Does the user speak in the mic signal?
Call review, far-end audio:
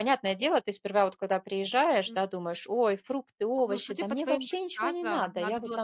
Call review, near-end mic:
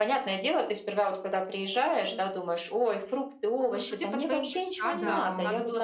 Yes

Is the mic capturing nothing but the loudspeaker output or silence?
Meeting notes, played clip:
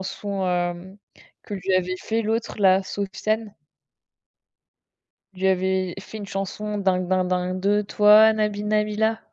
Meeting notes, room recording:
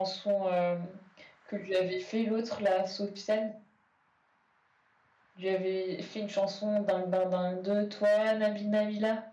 Yes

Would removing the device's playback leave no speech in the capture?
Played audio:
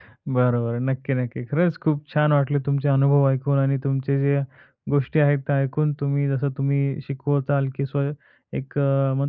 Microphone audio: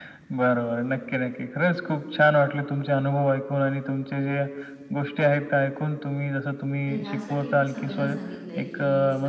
No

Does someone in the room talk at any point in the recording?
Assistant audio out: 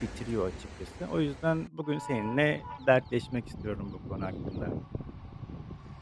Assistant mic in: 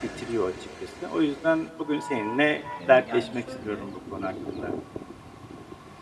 Yes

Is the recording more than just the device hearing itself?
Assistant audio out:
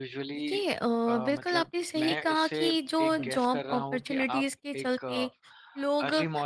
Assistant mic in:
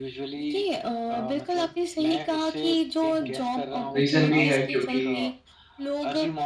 Yes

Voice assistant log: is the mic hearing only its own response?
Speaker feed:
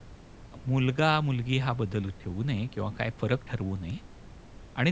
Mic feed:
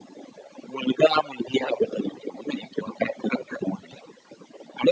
Yes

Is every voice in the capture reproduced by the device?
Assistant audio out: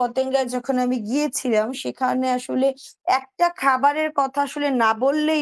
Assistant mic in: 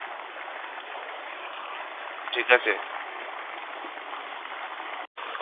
No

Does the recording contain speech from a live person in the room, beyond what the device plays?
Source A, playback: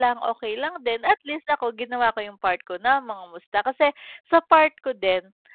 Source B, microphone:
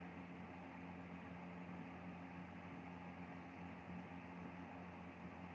No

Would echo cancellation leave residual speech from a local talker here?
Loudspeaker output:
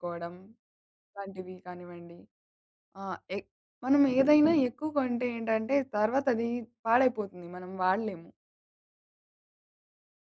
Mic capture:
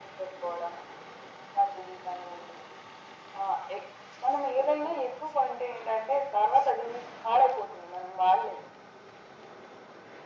No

